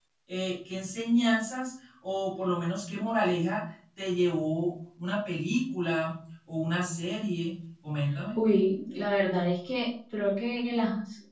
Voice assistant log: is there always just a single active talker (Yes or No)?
Yes